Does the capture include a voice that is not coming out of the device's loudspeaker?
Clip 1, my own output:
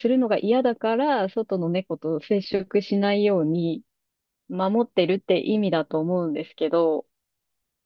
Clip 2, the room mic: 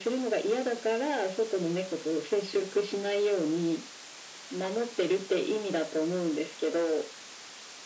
No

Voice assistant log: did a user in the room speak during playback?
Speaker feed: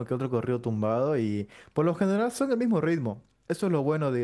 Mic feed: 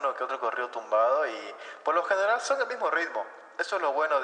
No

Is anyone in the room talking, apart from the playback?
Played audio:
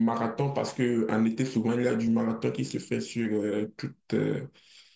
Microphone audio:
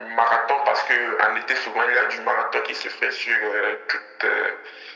No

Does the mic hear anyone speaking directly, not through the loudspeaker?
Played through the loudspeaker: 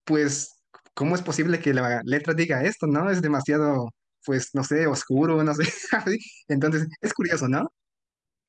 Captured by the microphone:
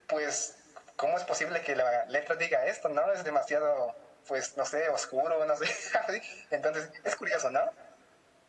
No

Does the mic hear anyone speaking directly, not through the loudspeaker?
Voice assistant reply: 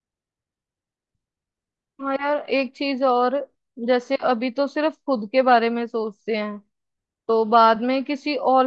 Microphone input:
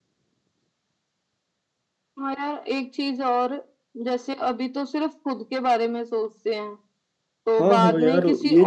Yes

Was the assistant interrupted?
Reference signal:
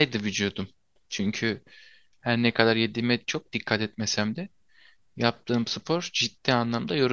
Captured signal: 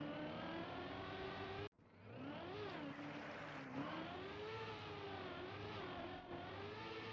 No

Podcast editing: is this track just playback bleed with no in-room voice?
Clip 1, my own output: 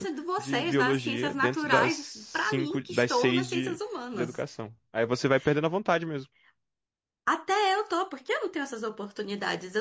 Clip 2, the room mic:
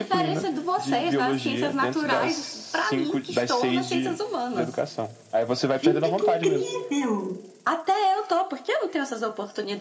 No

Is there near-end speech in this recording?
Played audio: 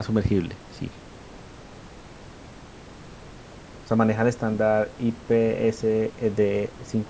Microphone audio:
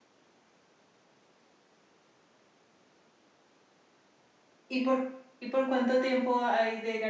Yes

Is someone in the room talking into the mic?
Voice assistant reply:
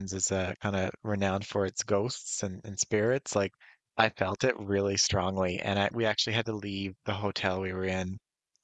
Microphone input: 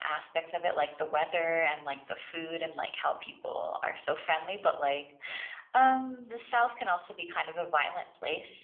Yes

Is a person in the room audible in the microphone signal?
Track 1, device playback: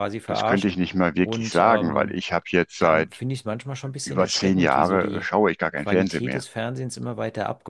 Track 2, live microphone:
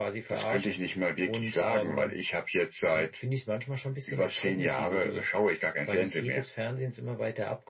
No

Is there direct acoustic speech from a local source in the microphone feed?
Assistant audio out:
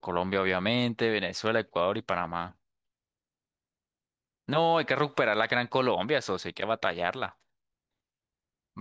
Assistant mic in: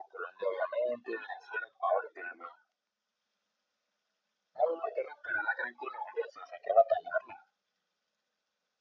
No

